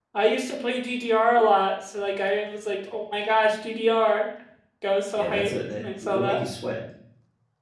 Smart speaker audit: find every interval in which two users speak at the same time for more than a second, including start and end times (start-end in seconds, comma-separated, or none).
5.2-6.4